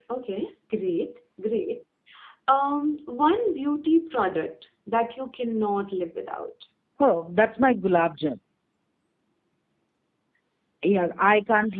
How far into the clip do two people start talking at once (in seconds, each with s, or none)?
none